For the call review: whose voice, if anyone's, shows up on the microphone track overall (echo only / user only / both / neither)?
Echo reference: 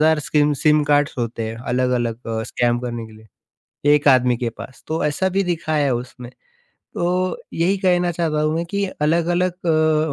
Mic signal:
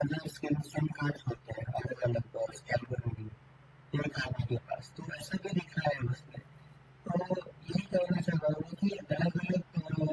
echo only